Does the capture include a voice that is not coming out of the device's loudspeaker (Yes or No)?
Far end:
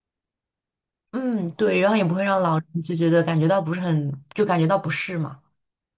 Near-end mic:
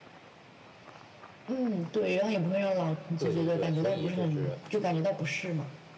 Yes